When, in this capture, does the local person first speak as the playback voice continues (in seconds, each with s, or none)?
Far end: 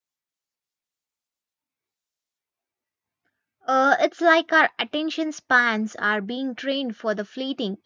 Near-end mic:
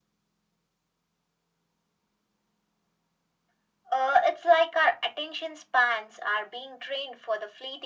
none